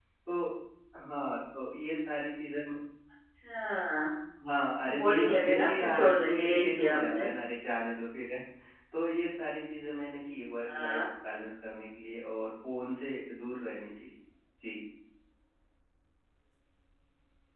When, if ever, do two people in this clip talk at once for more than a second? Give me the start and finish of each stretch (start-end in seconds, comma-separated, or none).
4.8-7.3